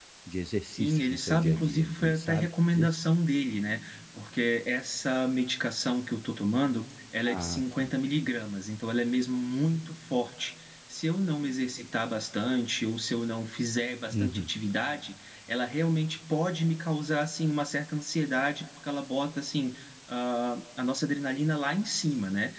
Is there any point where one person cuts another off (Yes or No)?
Yes